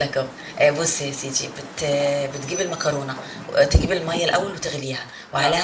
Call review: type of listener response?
listening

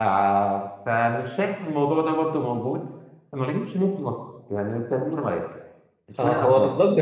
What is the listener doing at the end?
taking over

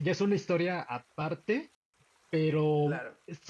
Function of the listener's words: listening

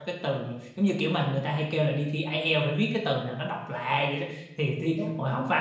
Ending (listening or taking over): listening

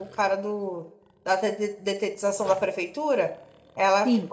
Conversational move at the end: listening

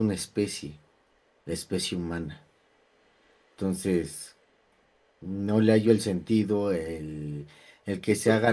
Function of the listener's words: listening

